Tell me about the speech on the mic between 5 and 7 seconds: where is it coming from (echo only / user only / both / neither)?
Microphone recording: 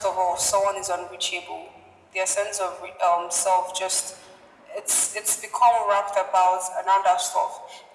echo only